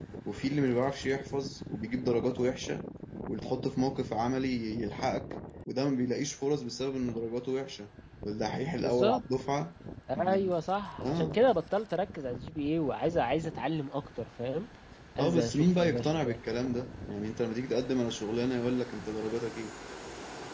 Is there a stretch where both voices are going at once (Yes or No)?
Yes